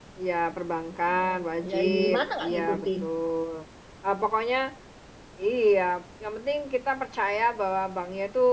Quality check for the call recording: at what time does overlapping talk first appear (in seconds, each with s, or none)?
1.1 s